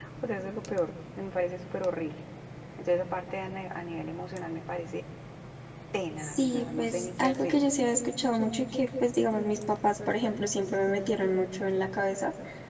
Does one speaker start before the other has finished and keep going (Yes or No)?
Yes